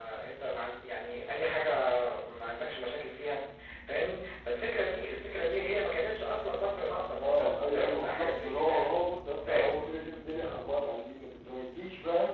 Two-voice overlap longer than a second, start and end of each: 7.2-8.9

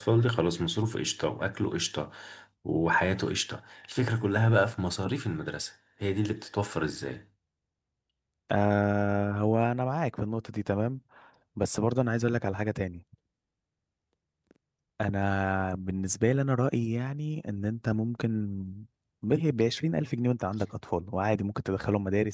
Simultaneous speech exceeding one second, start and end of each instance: none

